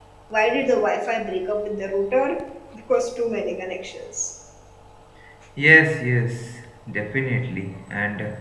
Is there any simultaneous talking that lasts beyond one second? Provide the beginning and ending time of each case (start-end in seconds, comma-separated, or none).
none